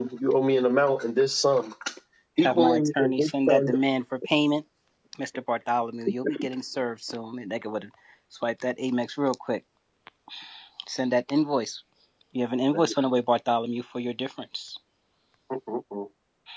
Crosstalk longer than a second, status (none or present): present